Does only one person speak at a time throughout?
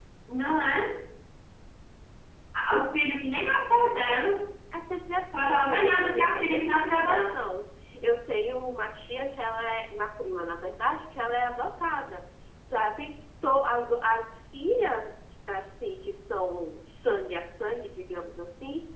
No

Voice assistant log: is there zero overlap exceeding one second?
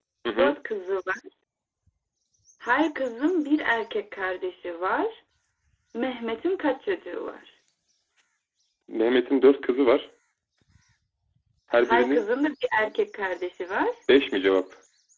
Yes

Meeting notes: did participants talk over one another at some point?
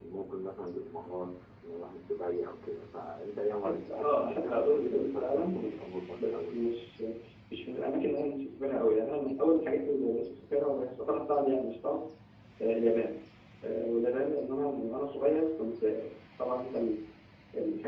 Yes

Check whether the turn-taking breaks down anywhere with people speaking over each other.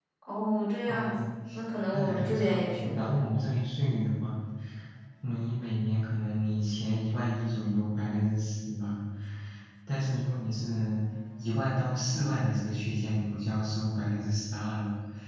Yes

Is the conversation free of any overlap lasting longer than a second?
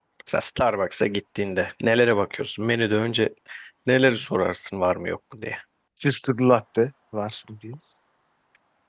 Yes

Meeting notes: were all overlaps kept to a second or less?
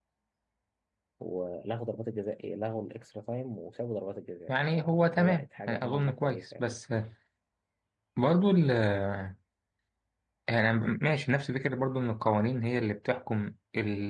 No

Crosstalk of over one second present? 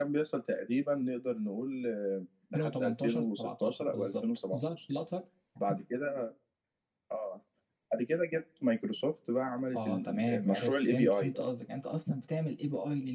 Yes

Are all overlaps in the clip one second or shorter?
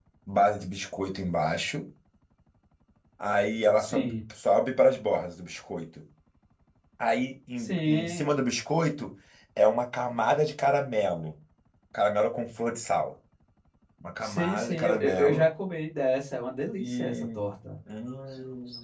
No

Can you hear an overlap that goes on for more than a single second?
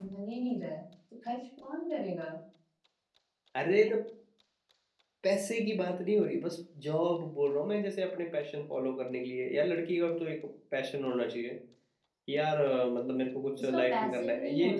Yes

